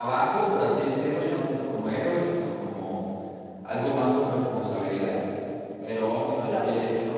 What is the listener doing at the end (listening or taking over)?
listening